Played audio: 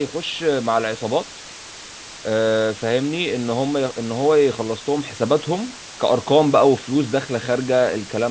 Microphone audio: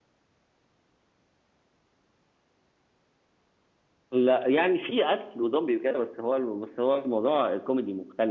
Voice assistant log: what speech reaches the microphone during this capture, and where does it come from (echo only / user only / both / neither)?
user only